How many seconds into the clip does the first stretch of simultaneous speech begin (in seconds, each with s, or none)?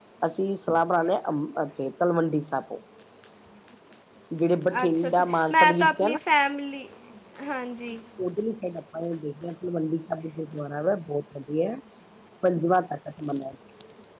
4.8 s